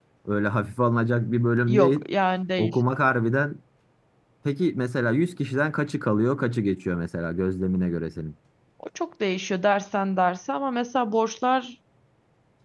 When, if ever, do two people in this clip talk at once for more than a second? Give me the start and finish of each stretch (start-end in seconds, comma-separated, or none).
none